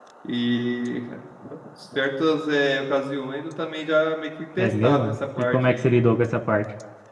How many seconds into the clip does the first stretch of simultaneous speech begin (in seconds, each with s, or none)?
4.6 s